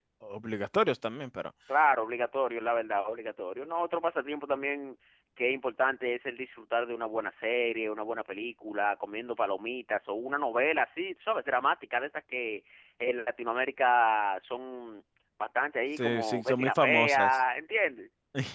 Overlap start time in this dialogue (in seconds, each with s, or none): 16.0 s